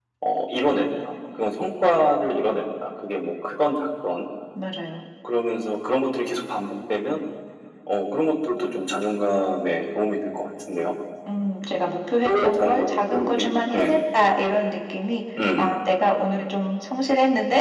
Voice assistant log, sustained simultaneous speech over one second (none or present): present